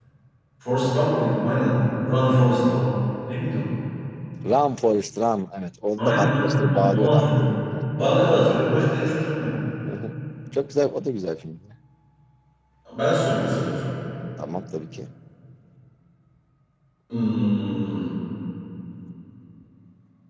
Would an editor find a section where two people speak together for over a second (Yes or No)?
Yes